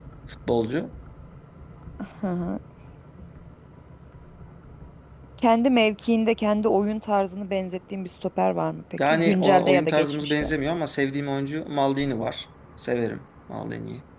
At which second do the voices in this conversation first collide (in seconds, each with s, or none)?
9.0 s